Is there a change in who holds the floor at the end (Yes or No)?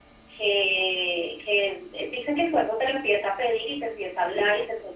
No